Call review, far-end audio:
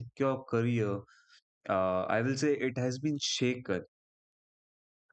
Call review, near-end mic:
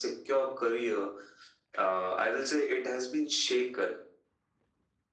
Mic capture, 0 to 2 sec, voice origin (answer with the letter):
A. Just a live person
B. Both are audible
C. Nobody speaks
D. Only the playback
D